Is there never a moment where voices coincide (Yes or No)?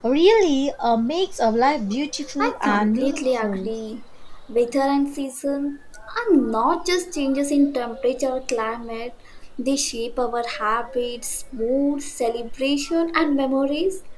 No